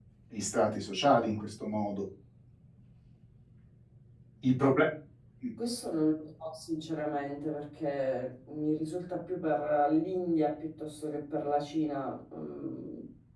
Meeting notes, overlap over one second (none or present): none